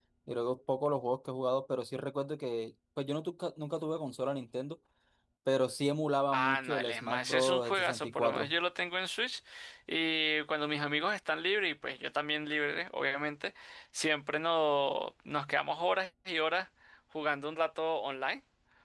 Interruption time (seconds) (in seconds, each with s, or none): 6.3 s